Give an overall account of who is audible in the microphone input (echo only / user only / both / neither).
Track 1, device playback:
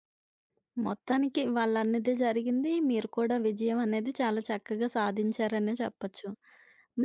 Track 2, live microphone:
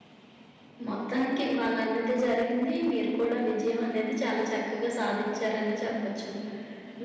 echo only